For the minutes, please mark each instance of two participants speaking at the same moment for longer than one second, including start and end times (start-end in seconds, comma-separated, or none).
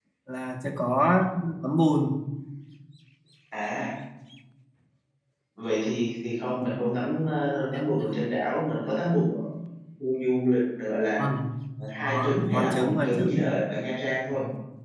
12.0-13.5